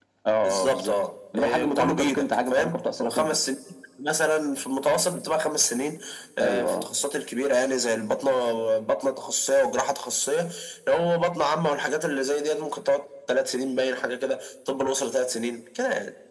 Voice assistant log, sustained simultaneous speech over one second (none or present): present